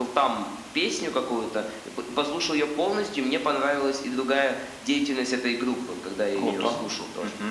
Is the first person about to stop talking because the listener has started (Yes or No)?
Yes